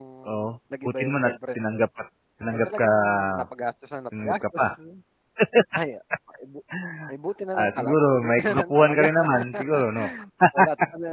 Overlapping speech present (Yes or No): Yes